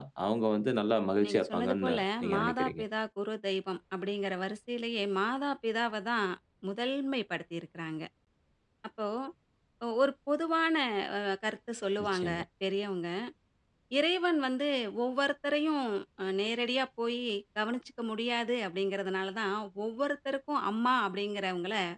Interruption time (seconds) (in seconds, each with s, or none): 1.2 s